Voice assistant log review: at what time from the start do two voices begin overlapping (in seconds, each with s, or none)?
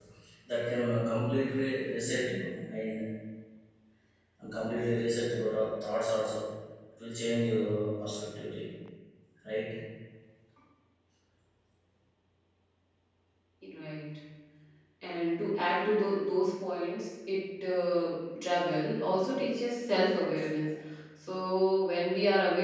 none